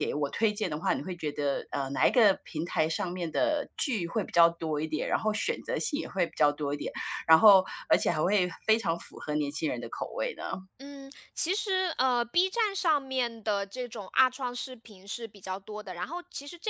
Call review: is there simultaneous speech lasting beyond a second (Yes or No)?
No